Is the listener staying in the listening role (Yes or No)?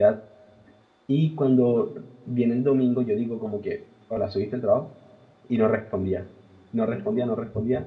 Yes